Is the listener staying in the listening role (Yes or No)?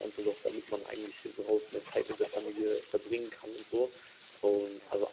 Yes